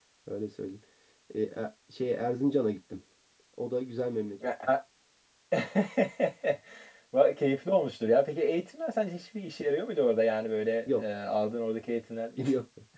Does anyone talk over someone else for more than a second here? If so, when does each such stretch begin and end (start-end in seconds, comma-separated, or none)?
none